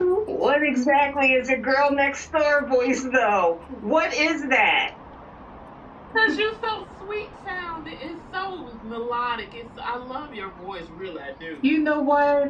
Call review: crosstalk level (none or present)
none